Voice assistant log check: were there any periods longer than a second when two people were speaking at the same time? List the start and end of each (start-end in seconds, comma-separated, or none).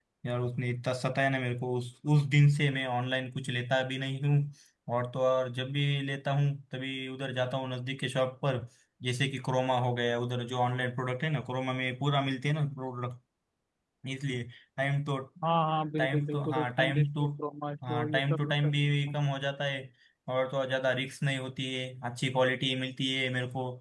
16.0-17.3, 17.9-19.2